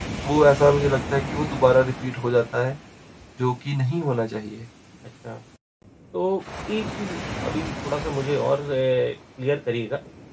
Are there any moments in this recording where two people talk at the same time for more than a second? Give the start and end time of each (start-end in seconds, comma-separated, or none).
none